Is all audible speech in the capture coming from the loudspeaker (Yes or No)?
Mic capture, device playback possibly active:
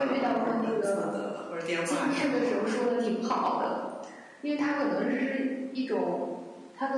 Yes